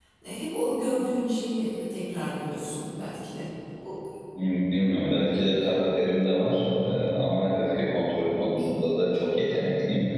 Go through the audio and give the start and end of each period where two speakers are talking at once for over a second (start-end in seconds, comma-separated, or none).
none